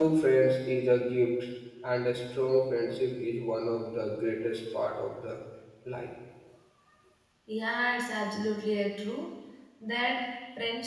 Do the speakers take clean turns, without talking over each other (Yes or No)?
Yes